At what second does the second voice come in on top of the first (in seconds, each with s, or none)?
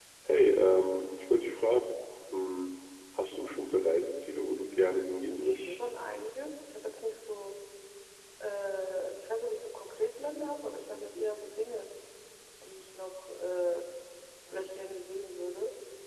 4.5 s